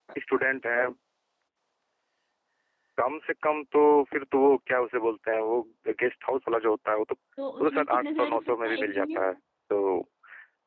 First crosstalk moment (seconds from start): 7.4 s

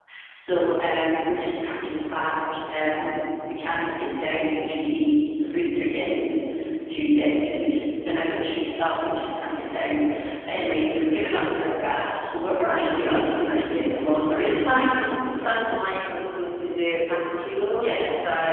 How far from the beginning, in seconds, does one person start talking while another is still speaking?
12.6 s

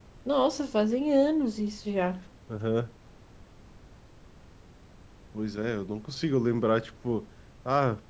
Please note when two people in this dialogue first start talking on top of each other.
none

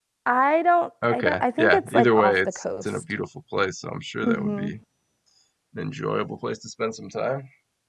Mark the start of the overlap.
1.1 s

